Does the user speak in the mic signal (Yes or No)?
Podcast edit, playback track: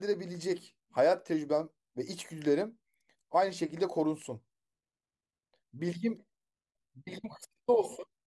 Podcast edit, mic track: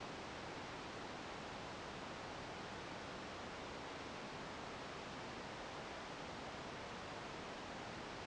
No